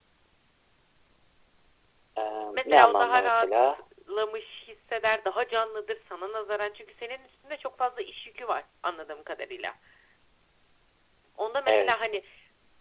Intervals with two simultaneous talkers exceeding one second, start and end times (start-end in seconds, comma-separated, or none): 2.5-3.8